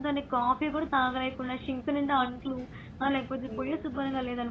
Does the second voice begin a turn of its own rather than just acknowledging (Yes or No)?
No